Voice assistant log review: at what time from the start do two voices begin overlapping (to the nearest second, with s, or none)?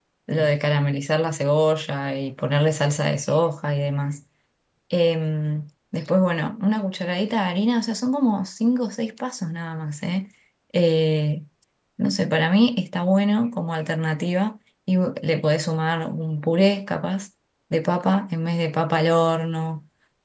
none